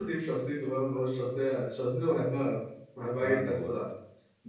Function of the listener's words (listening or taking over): listening